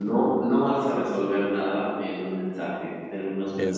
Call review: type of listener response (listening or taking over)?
listening